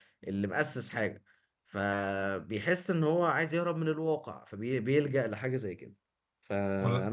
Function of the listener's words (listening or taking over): listening